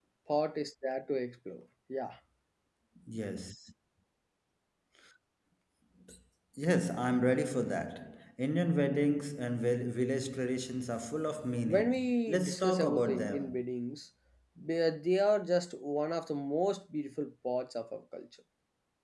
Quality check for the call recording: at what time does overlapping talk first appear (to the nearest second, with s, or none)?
12 s